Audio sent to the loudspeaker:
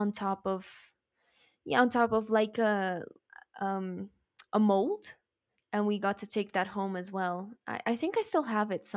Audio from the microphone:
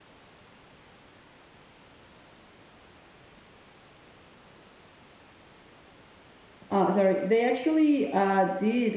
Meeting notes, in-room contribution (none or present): present